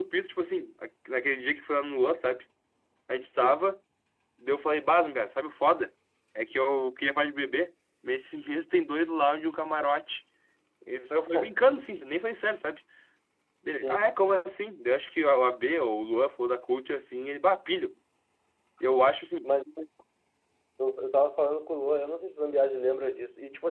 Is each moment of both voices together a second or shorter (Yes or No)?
Yes